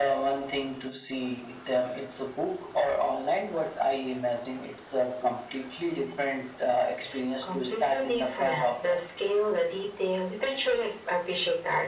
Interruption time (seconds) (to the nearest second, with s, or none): 7 s